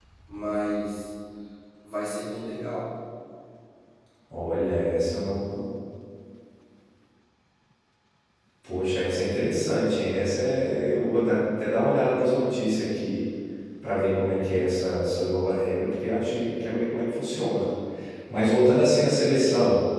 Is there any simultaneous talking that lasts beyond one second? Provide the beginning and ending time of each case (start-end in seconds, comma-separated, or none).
none